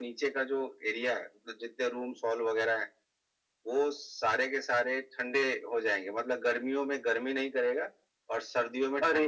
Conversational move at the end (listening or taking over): taking over